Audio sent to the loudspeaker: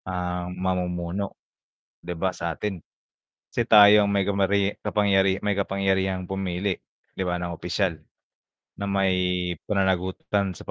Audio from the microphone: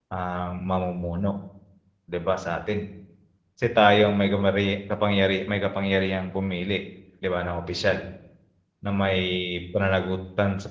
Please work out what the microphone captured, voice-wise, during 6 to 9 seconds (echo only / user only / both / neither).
echo only